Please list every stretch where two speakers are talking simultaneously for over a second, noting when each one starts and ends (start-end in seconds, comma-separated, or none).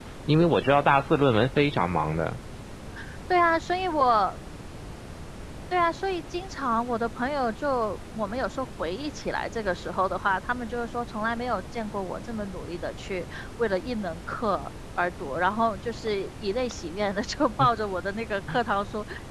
none